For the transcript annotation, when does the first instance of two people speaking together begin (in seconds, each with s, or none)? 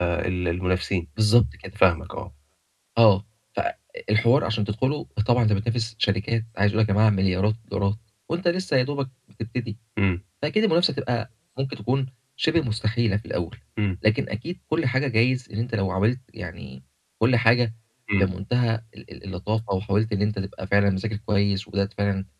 none